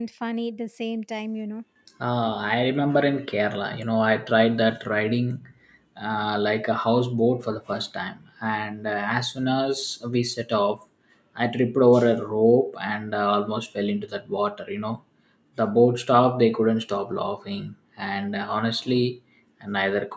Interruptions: none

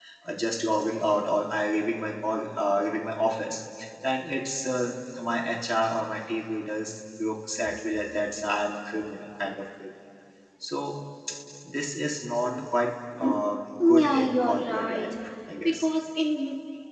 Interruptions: present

